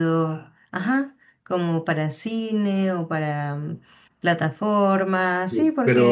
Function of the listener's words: taking over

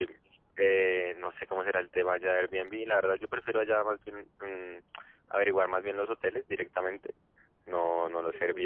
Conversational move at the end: listening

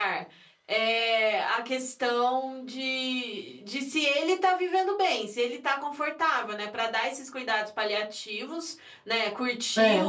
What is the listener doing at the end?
listening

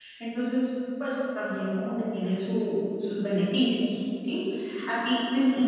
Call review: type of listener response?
listening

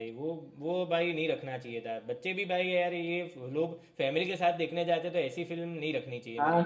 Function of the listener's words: taking over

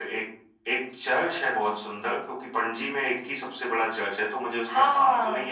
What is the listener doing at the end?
taking over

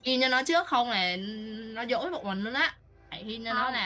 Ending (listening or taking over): listening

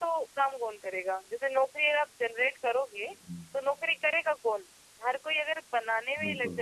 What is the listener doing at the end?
listening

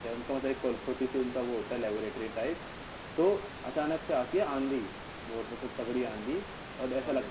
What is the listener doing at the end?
listening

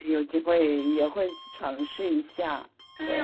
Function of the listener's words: taking over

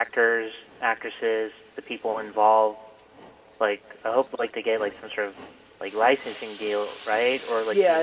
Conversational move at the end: taking over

